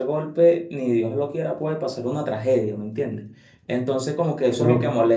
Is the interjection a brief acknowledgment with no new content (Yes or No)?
Yes